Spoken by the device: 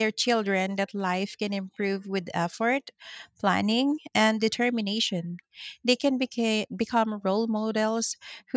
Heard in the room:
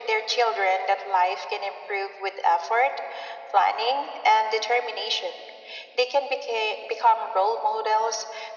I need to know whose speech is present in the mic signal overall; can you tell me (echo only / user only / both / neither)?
echo only